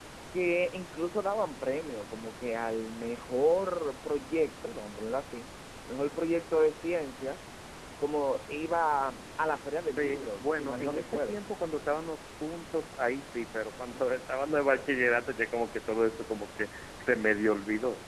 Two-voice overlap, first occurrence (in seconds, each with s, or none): 10.0 s